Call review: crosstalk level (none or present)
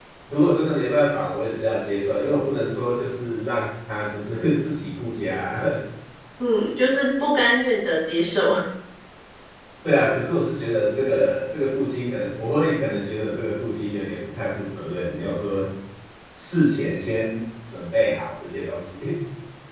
none